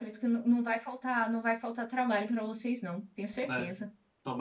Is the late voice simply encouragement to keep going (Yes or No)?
No